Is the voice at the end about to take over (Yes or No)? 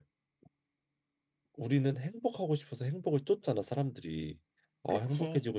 No